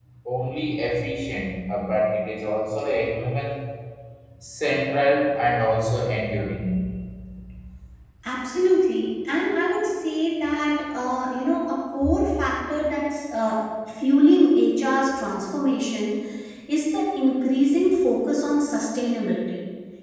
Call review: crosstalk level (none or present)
none